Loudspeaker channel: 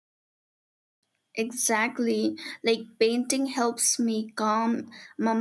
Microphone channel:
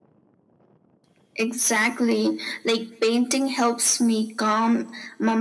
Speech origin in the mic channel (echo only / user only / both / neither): echo only